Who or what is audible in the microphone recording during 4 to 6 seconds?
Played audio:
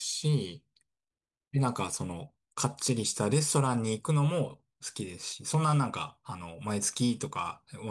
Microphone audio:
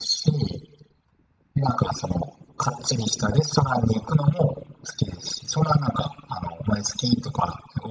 echo only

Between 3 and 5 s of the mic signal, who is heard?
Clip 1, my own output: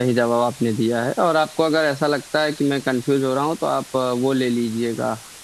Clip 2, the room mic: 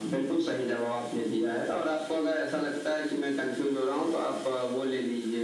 echo only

